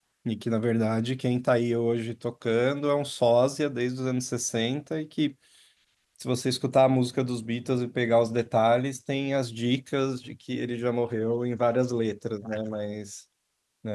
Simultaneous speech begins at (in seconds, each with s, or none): none